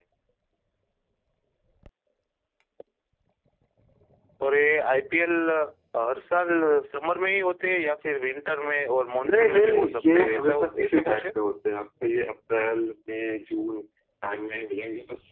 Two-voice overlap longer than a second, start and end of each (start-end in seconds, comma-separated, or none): 9.2-11.3